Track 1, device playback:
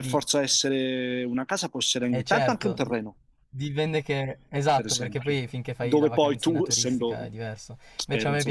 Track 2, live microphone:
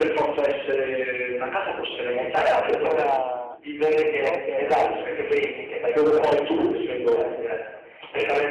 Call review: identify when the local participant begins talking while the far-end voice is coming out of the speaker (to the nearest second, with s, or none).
3 s